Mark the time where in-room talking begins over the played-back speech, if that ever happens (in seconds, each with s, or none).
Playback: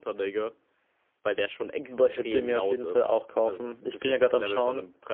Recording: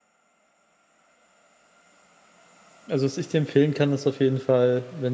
2.9 s